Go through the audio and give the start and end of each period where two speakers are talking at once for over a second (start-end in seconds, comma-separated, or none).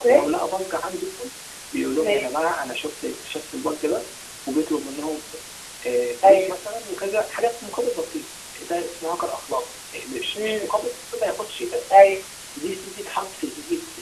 none